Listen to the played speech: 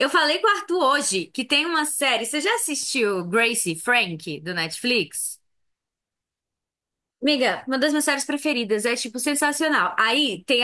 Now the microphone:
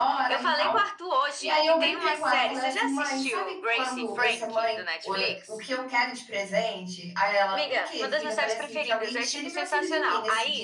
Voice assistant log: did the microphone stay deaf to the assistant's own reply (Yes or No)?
No